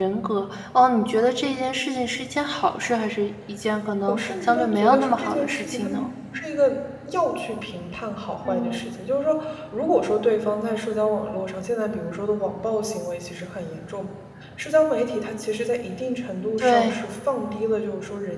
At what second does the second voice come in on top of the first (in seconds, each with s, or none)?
4.1 s